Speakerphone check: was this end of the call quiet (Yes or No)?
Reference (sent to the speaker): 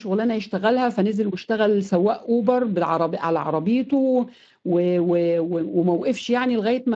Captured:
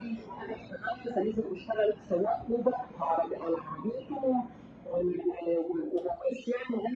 Yes